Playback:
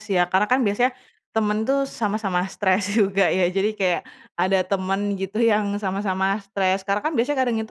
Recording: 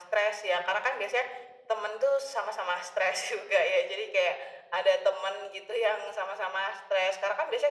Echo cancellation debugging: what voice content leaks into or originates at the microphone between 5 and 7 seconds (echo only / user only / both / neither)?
echo only